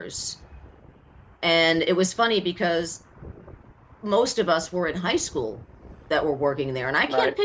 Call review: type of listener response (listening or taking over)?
listening